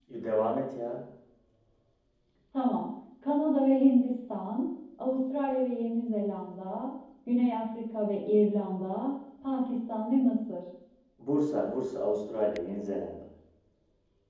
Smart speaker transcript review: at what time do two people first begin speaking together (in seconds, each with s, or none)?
none